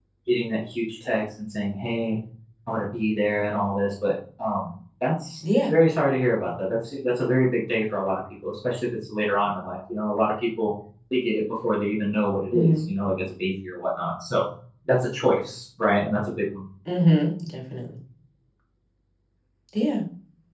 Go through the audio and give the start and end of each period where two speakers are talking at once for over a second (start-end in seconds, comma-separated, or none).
none